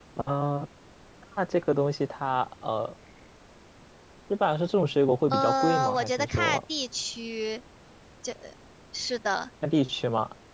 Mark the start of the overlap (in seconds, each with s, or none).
5.3 s